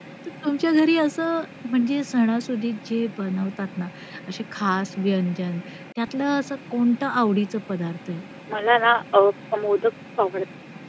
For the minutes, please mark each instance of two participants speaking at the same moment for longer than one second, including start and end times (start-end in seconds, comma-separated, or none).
none